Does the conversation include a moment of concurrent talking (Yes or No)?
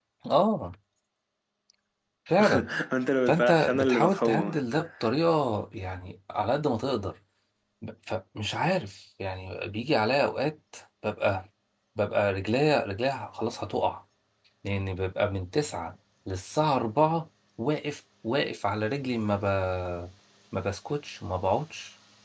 Yes